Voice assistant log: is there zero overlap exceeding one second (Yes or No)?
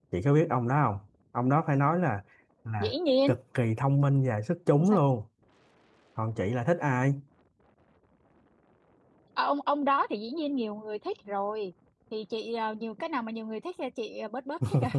Yes